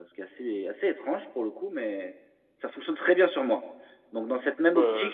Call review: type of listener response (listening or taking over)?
listening